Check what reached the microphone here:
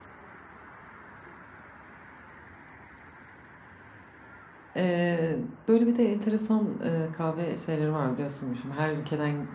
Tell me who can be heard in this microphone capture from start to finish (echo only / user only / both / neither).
user only